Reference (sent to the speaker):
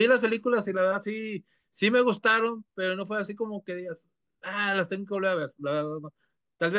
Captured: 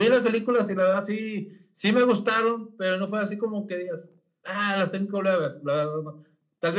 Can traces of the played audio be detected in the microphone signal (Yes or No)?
Yes